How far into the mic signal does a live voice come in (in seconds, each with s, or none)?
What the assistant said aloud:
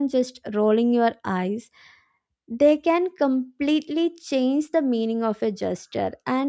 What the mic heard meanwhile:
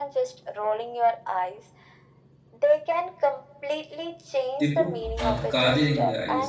4.6 s